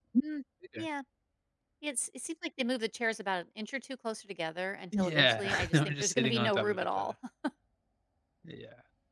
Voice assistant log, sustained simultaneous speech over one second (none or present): present